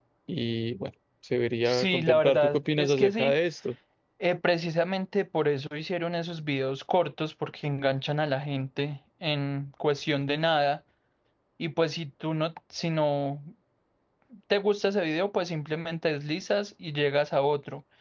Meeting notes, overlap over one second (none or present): present